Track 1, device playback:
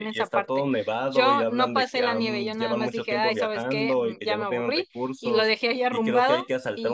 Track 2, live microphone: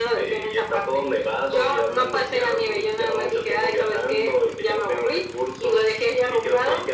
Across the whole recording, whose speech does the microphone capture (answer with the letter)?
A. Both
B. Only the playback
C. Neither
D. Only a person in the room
B